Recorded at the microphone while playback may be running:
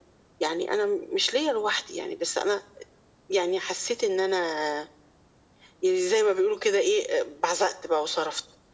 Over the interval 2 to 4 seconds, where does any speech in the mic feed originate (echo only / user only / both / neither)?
echo only